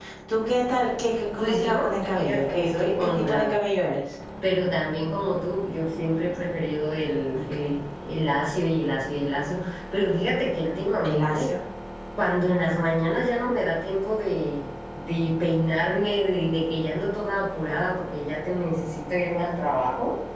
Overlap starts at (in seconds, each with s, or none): 1.4 s